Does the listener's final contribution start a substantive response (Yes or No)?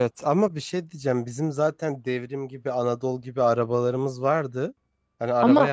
No